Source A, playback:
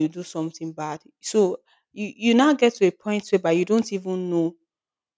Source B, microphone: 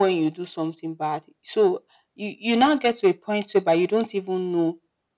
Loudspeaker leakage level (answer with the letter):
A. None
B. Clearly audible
B